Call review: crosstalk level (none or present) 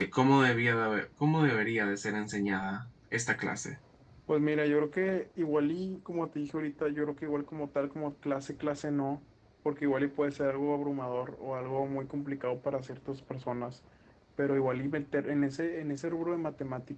none